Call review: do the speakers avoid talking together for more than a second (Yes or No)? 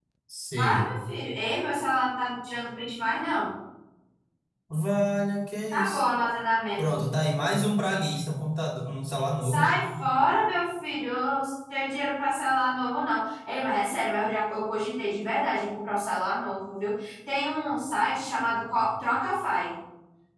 Yes